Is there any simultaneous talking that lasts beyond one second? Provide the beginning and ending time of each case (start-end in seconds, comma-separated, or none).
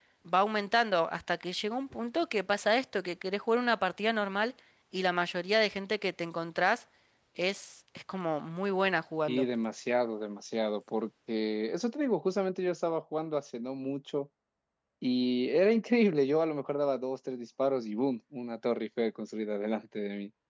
none